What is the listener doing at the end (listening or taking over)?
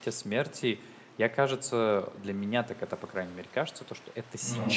listening